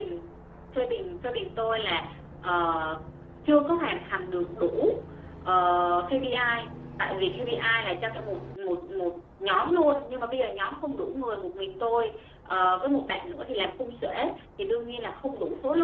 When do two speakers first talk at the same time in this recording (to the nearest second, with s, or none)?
none